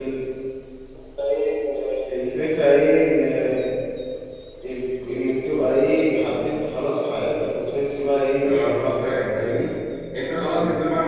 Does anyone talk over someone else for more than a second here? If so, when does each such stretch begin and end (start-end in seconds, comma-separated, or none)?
8.4-9.7